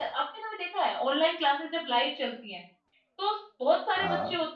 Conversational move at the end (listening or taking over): listening